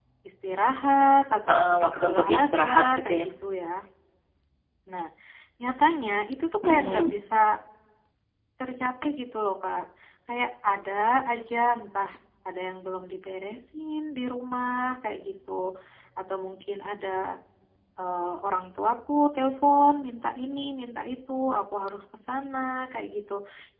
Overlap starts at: 1.5 s

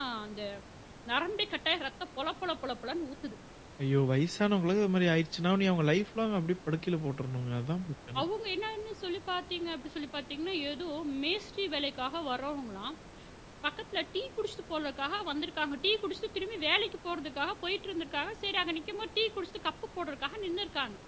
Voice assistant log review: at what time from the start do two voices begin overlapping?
none

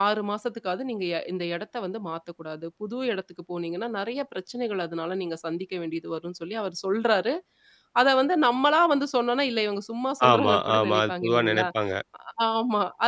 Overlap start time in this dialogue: 10.2 s

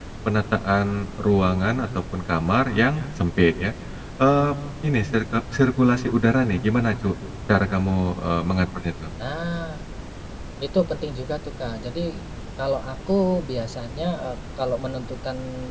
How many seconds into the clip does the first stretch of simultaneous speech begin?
none

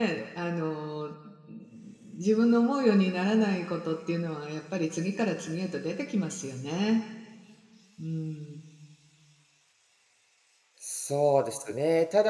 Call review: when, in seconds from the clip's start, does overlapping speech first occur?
none

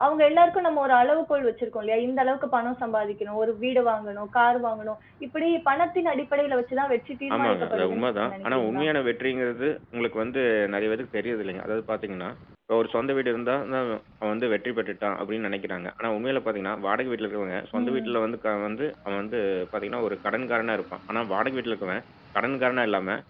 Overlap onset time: 7.3 s

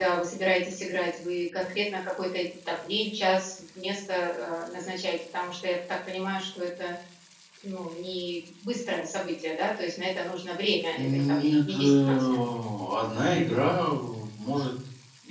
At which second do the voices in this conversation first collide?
10.9 s

